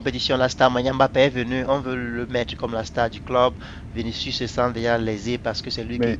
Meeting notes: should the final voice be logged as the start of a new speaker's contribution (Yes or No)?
No